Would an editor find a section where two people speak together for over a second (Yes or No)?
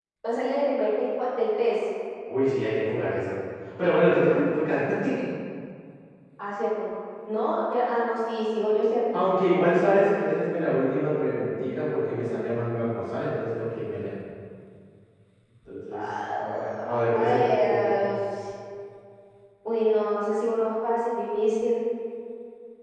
Yes